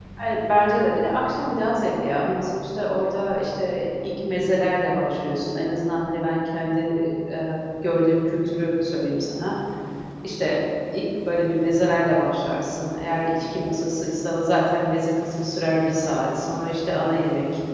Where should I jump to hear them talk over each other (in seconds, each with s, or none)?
none